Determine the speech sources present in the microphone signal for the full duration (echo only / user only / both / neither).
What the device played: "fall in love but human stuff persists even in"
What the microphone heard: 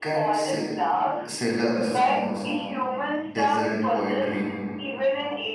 both